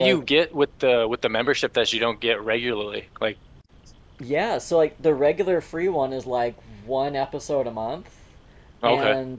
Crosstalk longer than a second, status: none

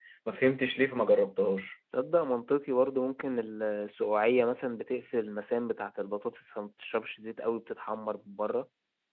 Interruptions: none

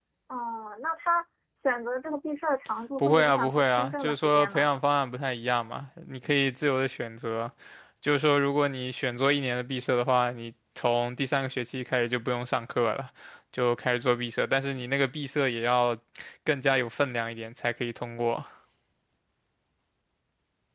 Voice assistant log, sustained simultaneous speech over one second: present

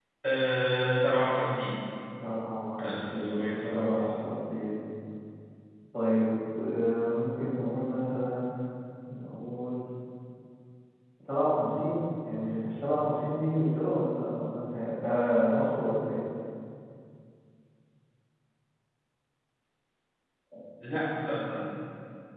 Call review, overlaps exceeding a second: present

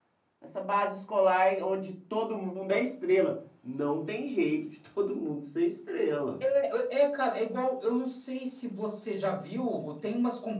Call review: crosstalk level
none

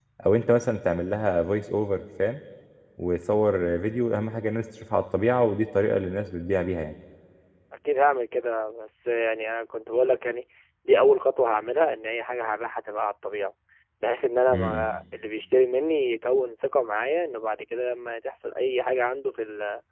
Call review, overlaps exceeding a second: none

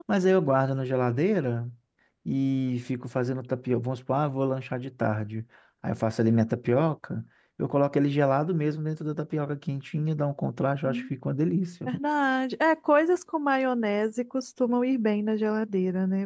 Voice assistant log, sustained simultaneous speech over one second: none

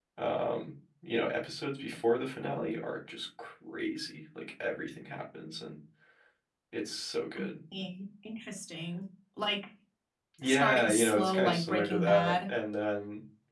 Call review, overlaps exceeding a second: present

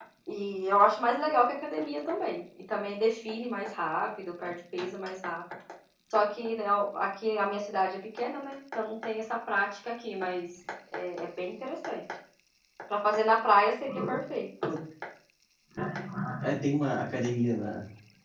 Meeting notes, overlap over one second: none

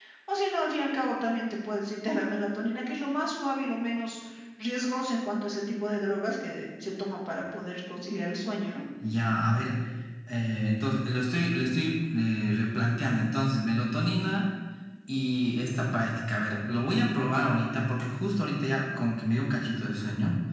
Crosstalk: none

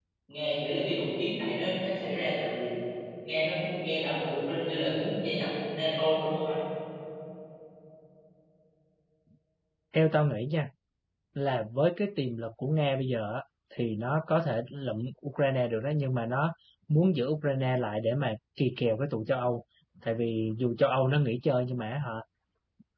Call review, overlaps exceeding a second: none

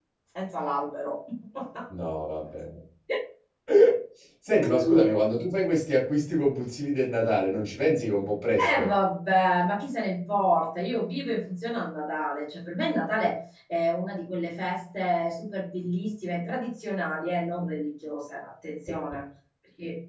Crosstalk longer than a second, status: none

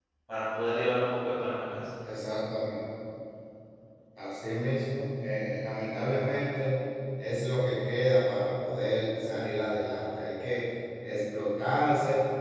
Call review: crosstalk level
none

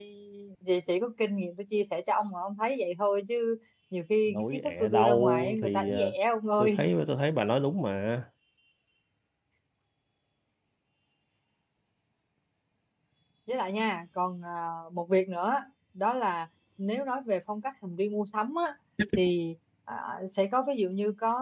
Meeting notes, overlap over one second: present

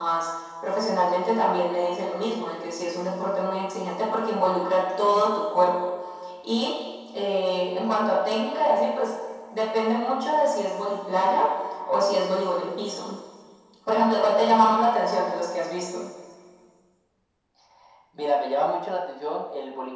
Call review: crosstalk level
none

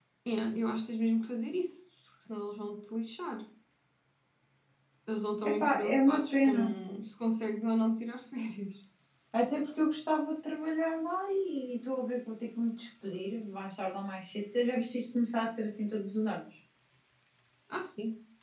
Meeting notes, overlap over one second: present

